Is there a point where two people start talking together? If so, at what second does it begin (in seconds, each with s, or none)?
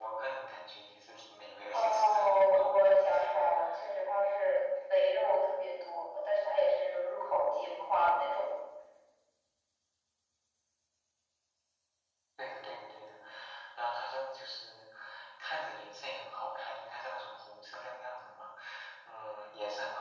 1.7 s